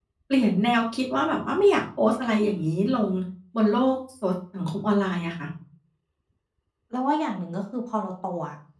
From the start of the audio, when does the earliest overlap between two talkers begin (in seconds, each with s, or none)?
none